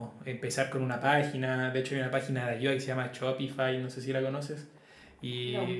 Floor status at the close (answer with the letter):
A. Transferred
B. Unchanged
B